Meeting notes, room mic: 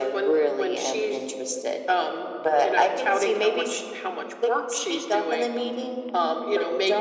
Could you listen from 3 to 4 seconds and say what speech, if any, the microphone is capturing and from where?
echo only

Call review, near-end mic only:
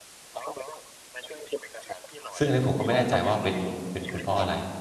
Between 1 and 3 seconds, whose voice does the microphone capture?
both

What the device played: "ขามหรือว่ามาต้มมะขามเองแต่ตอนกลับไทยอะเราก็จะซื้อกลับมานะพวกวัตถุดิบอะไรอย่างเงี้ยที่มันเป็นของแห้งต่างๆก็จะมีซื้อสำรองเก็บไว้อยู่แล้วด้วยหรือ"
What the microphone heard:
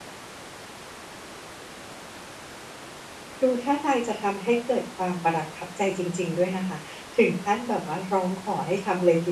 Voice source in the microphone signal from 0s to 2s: neither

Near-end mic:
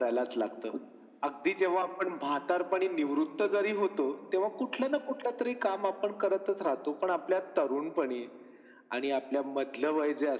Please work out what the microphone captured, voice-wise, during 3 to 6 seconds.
echo only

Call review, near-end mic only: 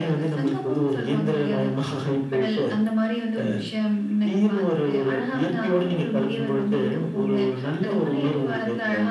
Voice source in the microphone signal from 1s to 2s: echo only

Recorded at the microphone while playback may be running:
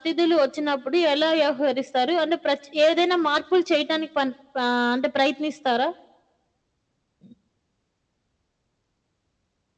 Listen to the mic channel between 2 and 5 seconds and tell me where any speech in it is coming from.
echo only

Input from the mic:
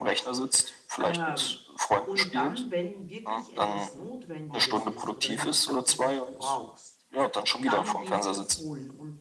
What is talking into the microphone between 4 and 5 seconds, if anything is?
both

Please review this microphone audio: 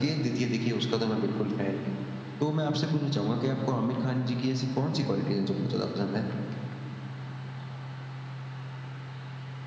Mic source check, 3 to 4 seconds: echo only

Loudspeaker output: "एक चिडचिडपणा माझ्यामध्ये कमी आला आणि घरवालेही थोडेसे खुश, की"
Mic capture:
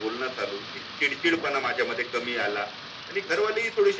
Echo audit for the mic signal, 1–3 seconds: echo only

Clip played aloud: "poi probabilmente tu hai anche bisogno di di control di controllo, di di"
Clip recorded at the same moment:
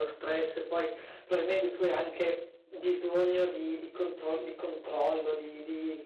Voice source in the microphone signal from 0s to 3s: echo only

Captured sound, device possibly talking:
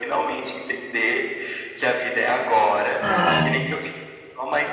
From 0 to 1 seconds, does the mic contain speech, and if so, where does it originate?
echo only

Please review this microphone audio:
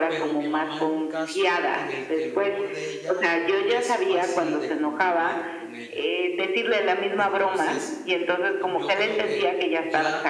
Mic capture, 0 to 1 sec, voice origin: both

